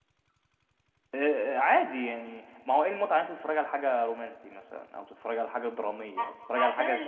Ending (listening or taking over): taking over